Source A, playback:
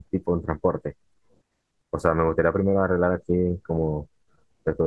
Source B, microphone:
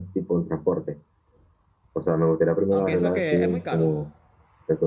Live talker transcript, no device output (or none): Aunque eso que es muy caro.